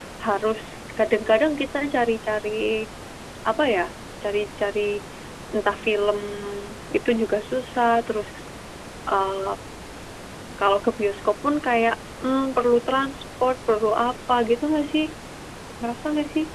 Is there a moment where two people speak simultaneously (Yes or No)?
No